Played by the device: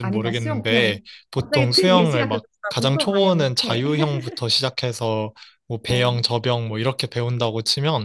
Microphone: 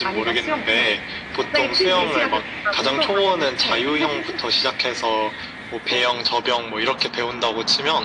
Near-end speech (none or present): none